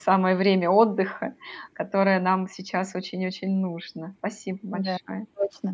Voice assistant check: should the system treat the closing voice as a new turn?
Yes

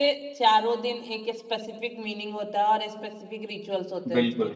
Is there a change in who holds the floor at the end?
Yes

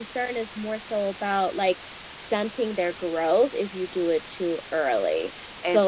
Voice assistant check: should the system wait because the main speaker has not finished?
Yes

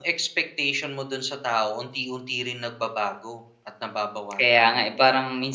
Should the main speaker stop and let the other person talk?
Yes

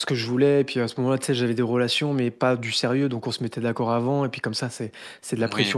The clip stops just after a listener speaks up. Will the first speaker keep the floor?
Yes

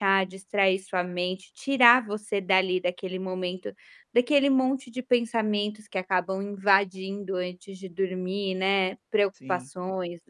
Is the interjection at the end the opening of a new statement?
No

